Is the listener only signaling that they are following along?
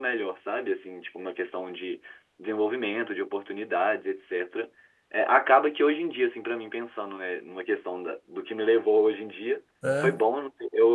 Yes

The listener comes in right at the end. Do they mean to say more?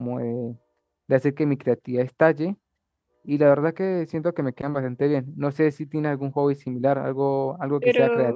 Yes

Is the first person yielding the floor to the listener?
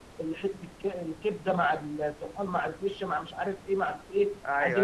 No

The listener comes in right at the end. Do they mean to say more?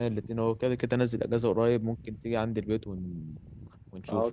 Yes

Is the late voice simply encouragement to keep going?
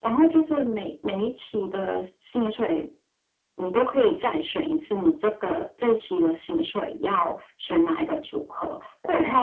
Yes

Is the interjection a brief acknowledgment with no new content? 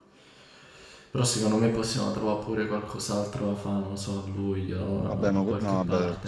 No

